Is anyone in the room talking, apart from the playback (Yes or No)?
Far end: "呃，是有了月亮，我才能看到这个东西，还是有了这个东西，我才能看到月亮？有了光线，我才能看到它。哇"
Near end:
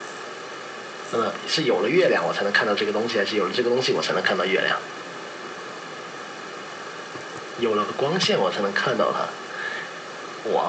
No